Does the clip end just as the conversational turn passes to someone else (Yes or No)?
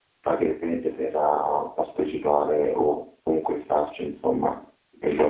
Yes